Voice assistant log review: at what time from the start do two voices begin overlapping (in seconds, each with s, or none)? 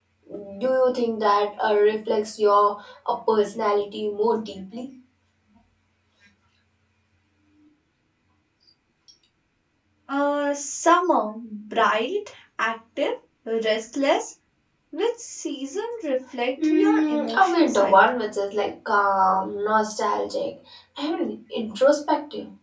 16.6 s